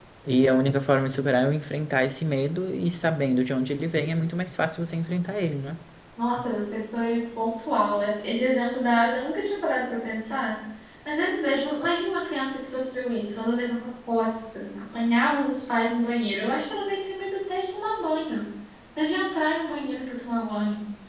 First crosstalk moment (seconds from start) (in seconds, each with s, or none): none